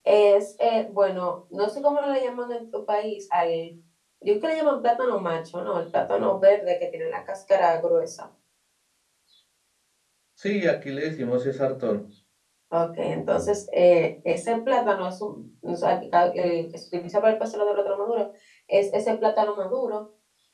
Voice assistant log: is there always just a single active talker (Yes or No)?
Yes